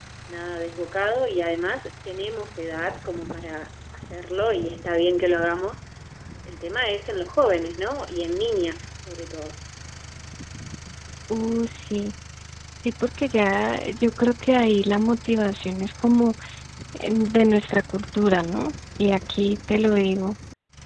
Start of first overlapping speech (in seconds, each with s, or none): none